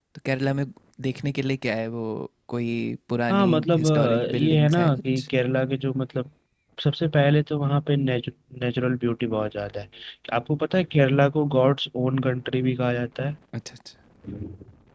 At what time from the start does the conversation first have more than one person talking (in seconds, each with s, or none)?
3.3 s